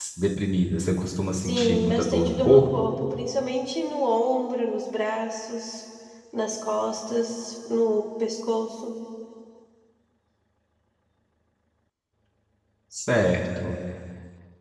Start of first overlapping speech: 1.4 s

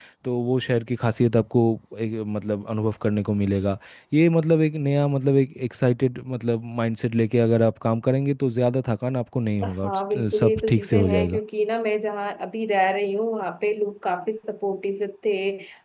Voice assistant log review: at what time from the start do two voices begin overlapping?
9.6 s

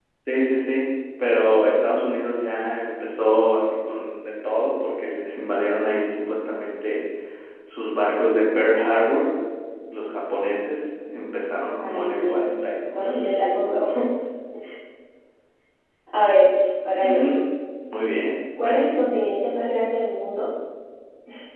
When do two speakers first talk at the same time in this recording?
11.8 s

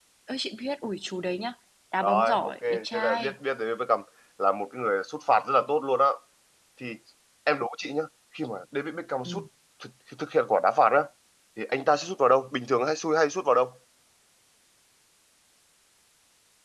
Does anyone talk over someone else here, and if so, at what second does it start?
2.0 s

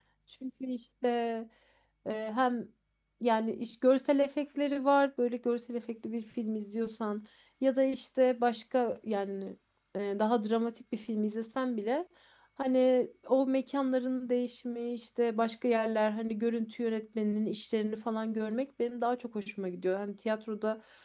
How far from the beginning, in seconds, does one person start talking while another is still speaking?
none

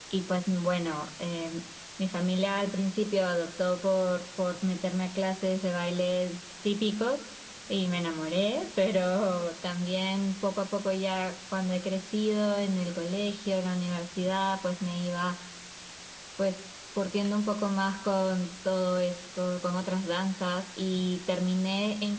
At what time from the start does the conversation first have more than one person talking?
none

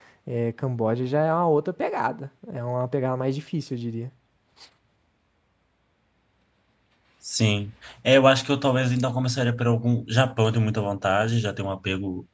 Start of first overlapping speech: none

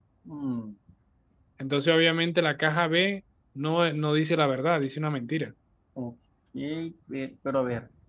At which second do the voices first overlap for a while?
none

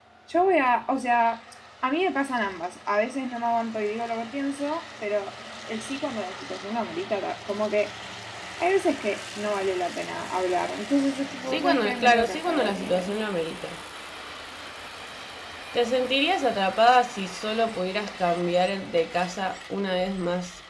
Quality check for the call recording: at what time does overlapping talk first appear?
11.5 s

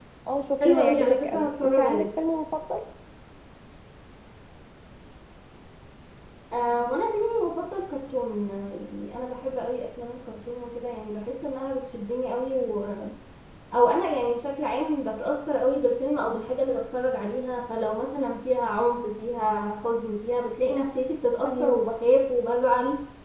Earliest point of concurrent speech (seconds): 0.6 s

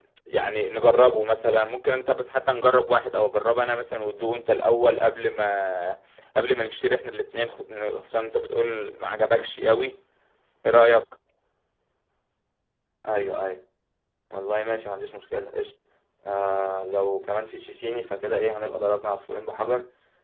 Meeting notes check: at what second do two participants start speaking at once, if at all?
none

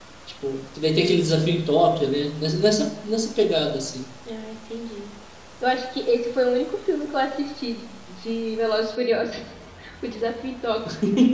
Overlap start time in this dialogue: none

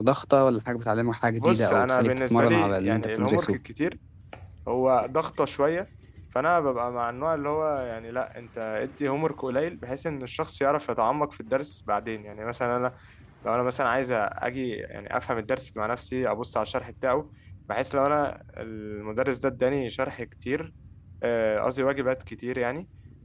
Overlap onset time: 1.3 s

